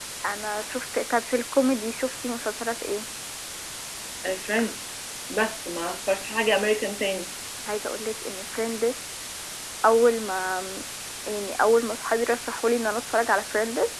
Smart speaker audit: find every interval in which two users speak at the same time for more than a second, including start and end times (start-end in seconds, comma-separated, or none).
none